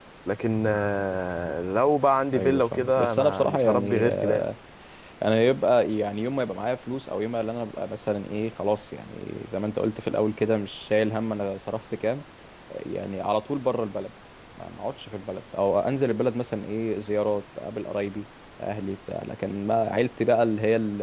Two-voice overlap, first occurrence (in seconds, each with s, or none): 2.3 s